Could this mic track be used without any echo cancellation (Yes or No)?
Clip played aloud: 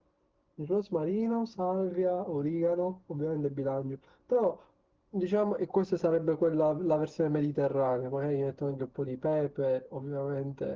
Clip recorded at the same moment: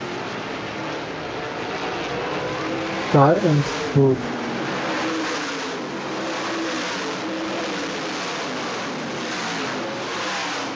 Yes